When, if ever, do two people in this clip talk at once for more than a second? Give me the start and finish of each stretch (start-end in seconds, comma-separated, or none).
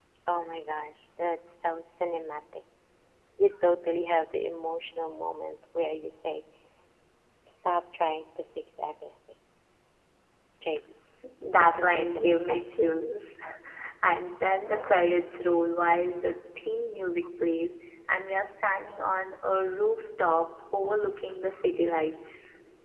11.6-12.9